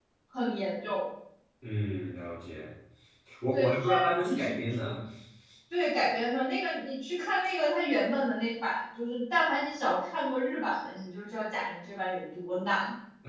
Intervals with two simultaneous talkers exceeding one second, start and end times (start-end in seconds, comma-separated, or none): 3.5-5.0